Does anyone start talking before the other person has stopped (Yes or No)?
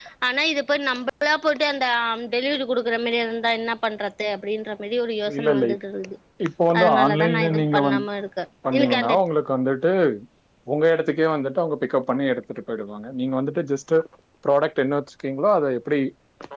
Yes